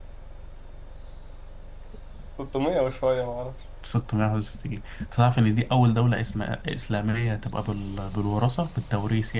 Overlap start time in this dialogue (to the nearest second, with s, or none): none